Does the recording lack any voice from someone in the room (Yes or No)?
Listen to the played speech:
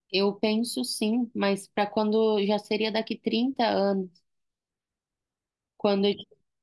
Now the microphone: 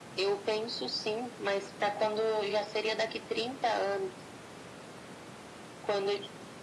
Yes